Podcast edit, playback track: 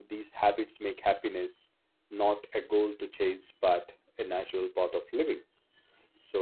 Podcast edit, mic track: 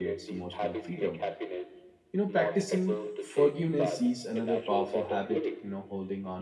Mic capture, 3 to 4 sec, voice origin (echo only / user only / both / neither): both